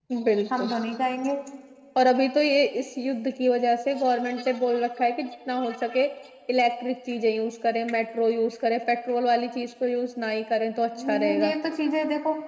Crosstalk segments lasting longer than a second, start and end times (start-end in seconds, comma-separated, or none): none